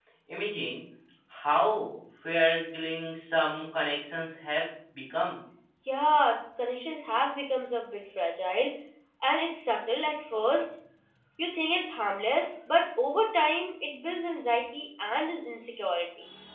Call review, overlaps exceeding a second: none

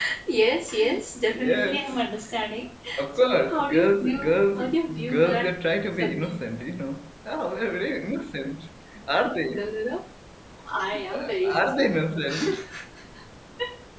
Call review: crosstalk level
present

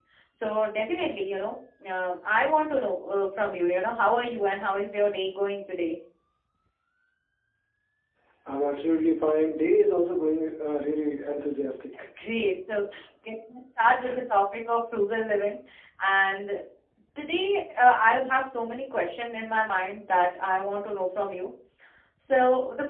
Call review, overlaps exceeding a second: none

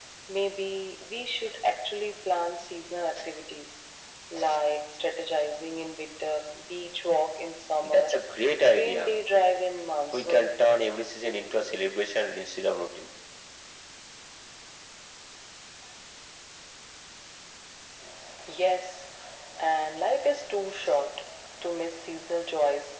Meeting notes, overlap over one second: none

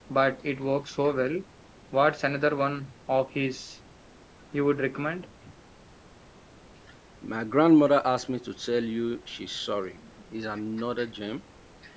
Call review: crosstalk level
none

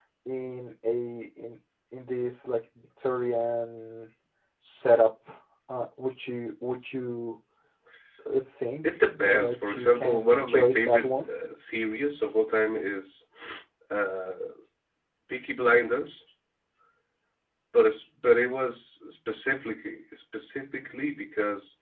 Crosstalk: present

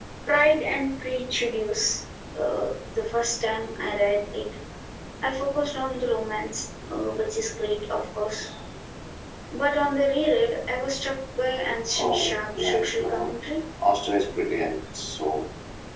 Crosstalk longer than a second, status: present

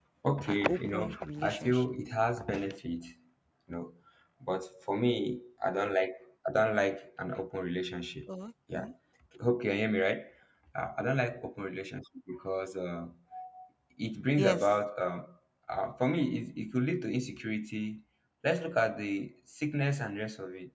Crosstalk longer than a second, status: present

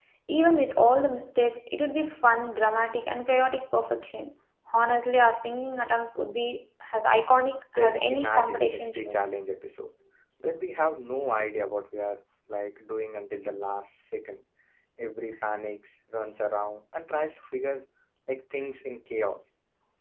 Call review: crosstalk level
present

